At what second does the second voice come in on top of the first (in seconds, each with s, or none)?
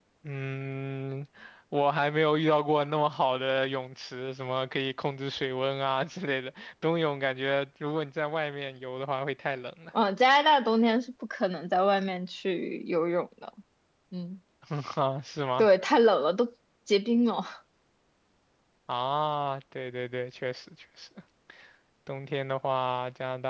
none